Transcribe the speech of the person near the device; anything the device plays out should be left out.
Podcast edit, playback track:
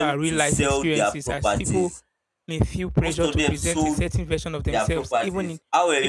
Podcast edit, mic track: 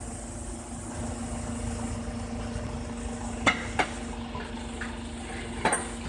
none

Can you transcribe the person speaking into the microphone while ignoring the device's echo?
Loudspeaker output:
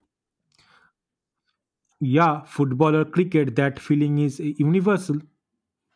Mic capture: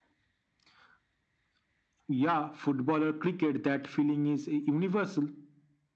none

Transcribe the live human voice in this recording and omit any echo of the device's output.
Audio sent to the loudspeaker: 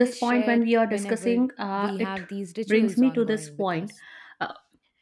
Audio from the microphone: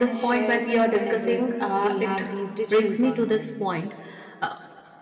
none

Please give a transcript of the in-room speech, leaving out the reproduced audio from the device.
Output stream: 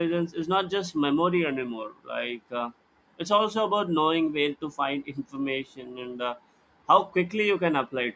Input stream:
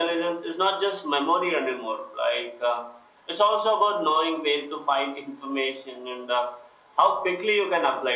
none

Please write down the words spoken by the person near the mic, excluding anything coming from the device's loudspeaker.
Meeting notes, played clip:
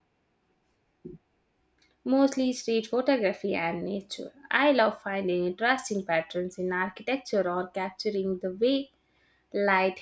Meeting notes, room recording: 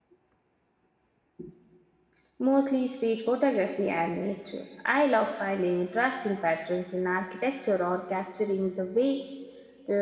none

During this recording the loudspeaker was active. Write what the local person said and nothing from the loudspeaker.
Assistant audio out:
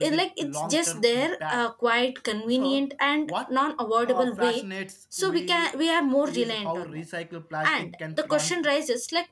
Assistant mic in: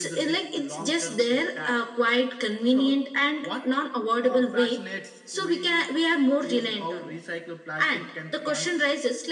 none

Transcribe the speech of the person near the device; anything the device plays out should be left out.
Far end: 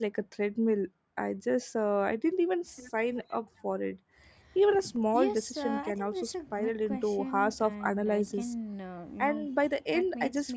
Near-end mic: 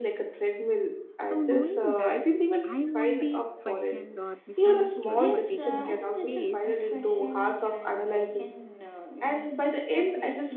So, knowing that I won't be questioned or misunderstood for taking the space

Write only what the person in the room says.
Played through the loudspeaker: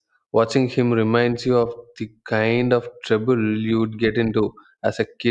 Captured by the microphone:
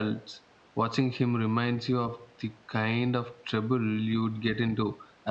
none

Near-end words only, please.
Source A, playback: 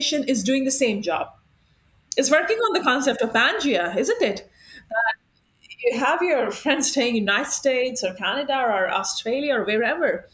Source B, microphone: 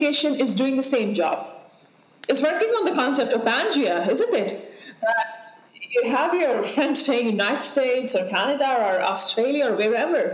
none

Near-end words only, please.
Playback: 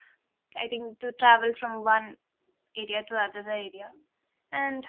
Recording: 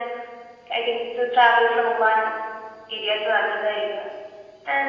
none

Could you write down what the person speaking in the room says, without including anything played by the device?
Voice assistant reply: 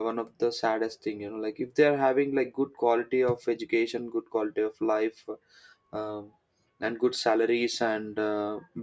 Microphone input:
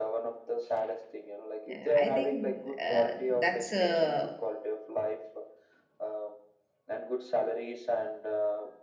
Uh, I think uh, that's a uh,

